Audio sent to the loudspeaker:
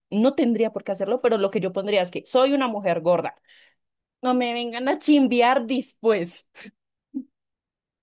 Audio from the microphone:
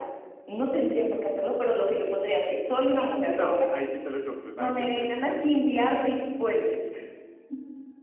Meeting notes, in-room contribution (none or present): present